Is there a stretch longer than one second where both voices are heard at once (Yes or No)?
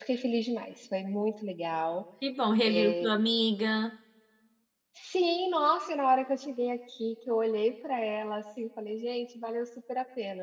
No